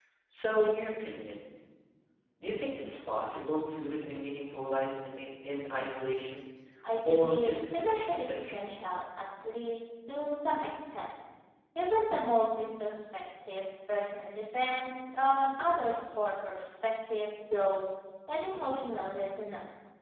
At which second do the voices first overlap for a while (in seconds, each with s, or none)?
7.1 s